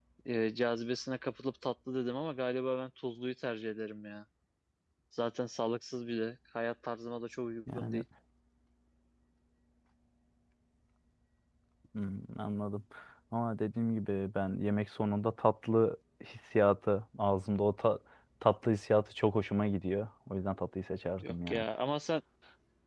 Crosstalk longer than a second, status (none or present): none